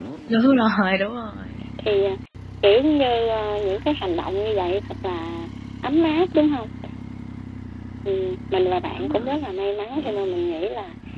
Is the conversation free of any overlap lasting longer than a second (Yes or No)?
Yes